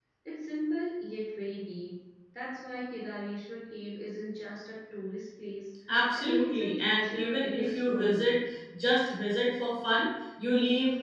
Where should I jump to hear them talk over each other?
6.2 s

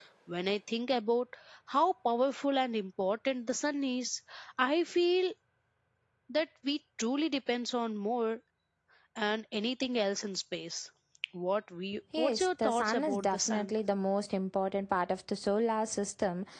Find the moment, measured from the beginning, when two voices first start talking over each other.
12.2 s

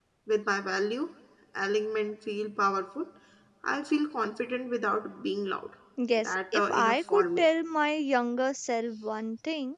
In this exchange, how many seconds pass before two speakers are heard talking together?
6.2 s

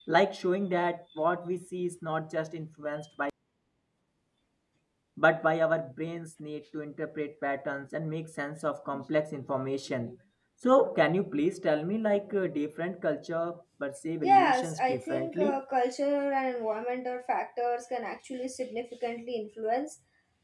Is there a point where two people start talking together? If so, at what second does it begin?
14.2 s

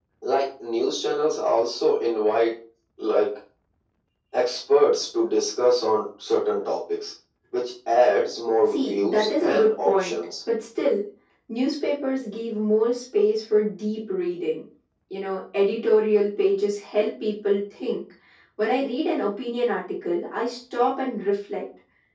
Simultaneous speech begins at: 8.7 s

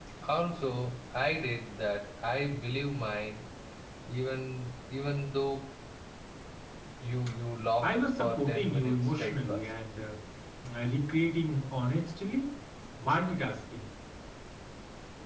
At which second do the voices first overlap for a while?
7.9 s

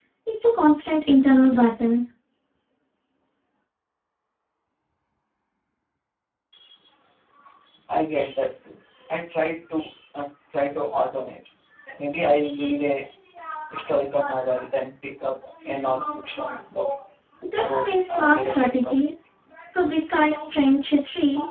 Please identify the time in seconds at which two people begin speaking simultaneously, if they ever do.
17.6 s

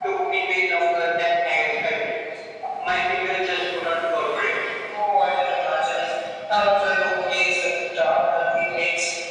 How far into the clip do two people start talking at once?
none

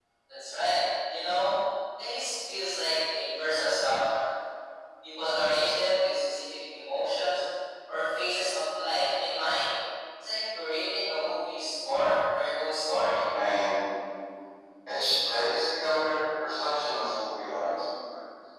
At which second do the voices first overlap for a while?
none

